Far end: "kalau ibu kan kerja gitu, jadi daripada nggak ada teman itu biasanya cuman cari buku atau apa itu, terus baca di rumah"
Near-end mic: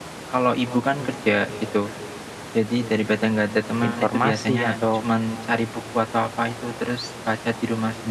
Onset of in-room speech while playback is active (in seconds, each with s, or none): 3.9 s